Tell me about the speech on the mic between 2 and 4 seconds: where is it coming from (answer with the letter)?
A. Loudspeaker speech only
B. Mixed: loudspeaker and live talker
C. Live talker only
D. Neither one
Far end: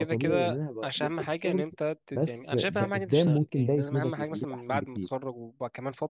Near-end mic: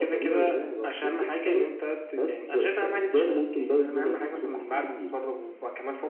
A